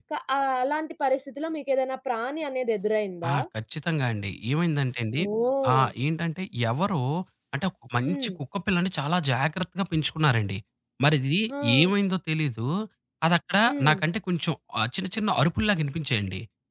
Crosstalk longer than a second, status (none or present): none